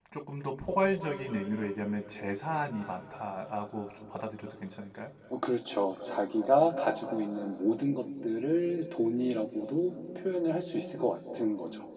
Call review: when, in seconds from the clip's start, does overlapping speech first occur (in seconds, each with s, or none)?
none